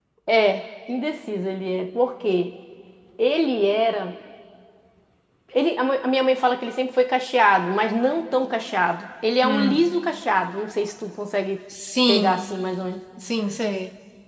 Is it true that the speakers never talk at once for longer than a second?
Yes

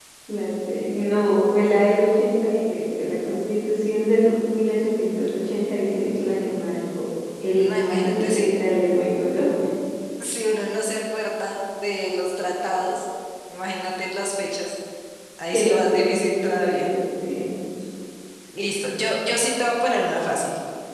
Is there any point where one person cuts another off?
Yes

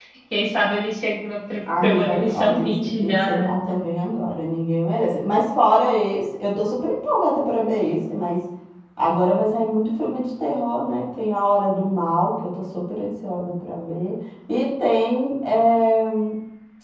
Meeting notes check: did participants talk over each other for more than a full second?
Yes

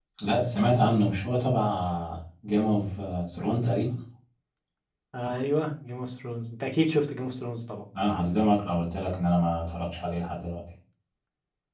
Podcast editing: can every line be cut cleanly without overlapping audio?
Yes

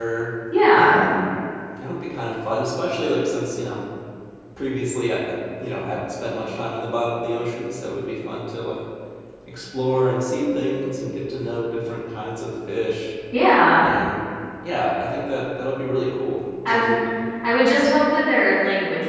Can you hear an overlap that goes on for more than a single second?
No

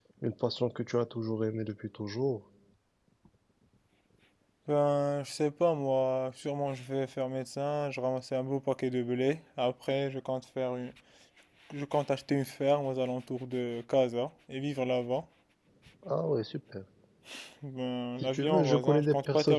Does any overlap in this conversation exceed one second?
Yes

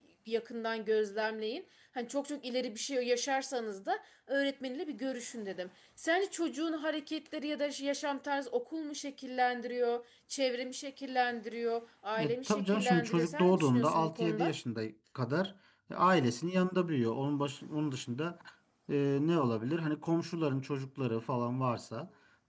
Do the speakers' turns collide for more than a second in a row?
Yes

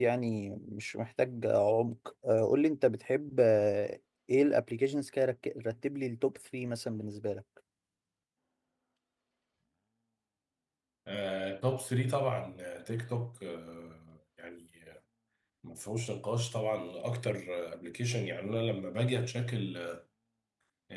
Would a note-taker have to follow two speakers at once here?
No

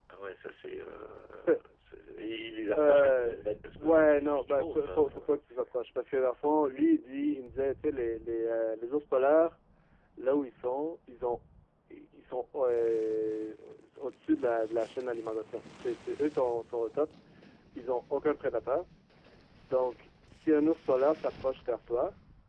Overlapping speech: Yes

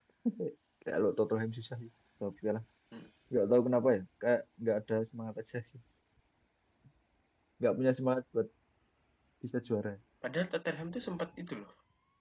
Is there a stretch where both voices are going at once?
No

